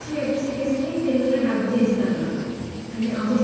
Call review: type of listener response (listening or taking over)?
taking over